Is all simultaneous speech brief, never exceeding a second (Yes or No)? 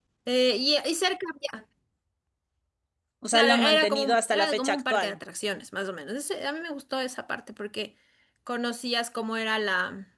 No